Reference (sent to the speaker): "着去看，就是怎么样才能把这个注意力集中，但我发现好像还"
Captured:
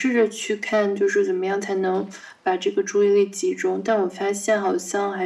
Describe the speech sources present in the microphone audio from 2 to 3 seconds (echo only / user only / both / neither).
echo only